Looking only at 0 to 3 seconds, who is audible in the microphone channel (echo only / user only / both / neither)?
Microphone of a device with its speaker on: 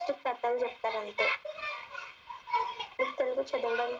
echo only